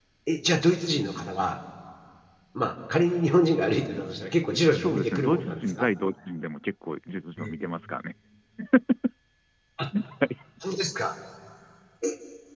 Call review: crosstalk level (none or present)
present